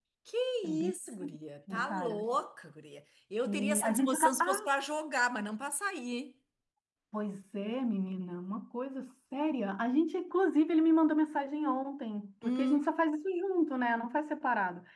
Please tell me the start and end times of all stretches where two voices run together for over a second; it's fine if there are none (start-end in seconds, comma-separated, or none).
3.5-4.7